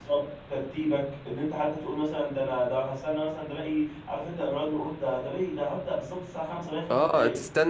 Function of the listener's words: taking over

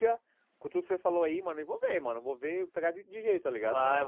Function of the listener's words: taking over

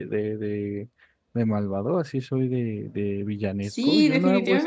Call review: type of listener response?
taking over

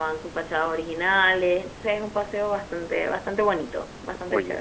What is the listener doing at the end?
taking over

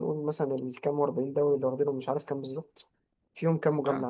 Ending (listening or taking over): listening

